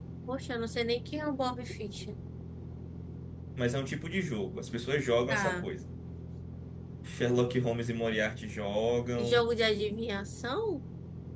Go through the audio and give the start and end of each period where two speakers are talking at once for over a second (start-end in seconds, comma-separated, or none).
none